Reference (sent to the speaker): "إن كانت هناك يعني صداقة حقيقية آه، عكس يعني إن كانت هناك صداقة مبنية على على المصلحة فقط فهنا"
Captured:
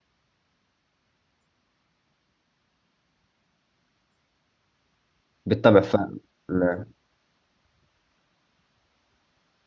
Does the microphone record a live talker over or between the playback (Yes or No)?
Yes